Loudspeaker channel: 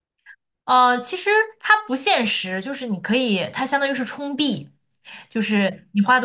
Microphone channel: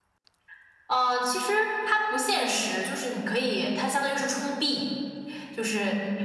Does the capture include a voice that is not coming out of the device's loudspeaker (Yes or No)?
No